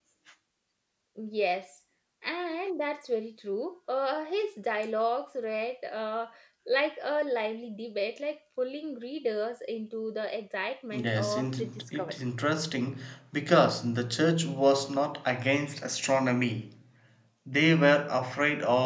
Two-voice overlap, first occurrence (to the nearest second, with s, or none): 11 s